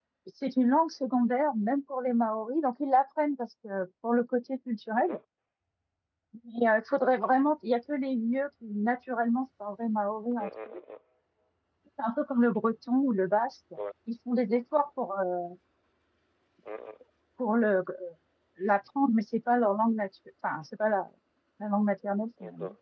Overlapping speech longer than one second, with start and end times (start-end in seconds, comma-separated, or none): none